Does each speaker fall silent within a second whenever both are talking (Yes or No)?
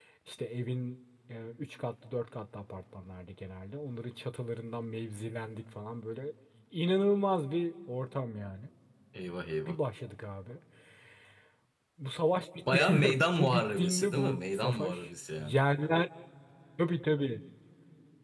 No